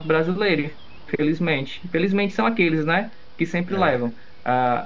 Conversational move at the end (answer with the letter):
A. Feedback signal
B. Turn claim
A